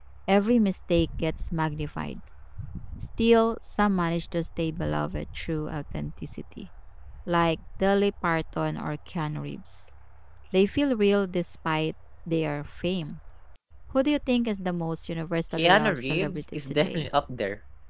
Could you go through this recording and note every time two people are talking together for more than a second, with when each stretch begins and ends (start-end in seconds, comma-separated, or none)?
15.6-17.1